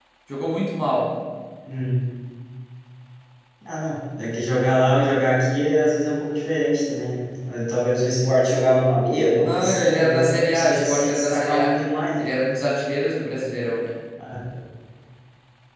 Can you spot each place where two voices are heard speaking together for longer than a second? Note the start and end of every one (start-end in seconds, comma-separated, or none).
9.4-11.7